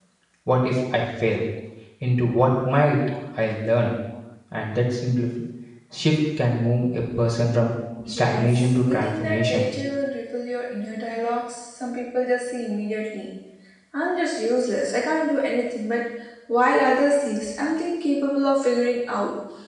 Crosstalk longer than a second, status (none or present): present